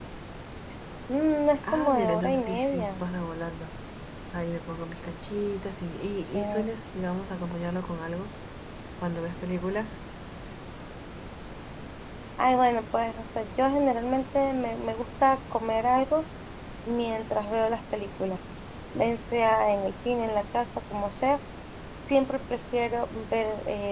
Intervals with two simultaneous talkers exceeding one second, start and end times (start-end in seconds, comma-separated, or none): 1.7-3.0